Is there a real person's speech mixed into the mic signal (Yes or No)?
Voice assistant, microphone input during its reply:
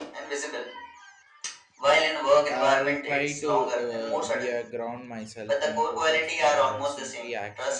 Yes